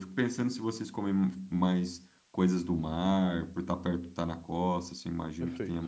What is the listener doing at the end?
listening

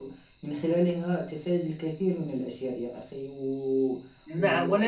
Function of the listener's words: taking over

